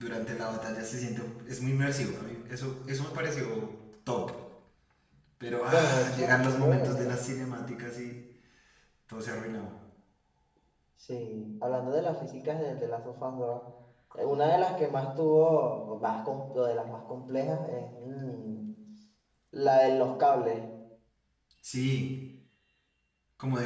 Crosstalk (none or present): present